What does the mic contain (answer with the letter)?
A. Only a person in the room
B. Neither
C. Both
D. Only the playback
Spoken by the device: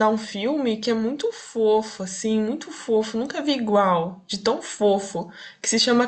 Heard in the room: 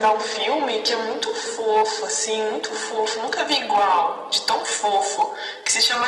D